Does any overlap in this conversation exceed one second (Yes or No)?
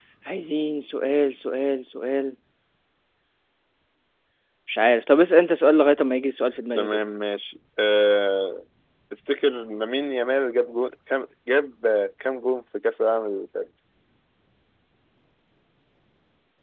No